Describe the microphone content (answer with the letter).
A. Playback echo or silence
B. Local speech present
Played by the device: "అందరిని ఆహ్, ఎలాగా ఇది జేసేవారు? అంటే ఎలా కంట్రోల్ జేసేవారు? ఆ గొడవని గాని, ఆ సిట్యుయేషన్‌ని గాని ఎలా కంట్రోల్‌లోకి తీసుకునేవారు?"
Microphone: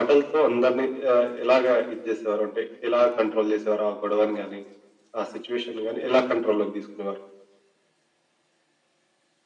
A